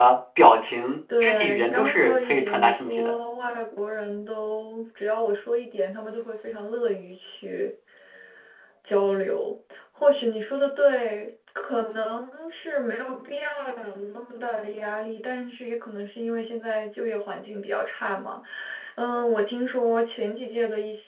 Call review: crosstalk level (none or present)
present